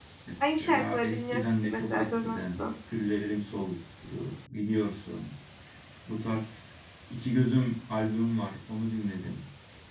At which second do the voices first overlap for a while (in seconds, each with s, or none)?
0.5 s